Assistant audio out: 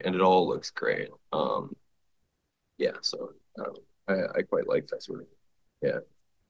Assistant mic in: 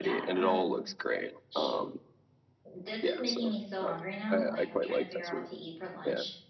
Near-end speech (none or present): present